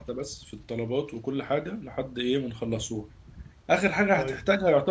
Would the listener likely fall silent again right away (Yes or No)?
Yes